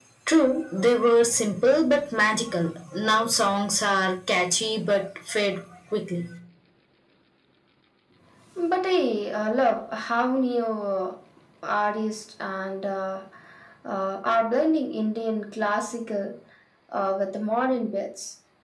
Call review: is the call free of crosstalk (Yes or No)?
Yes